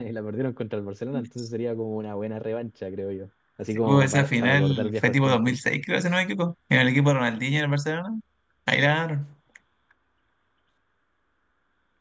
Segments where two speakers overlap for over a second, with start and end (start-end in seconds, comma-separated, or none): 3.8-5.6